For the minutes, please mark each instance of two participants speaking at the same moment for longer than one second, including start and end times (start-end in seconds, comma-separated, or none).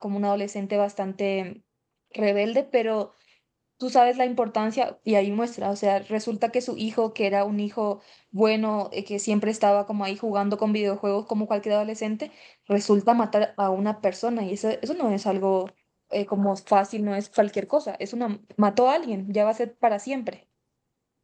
none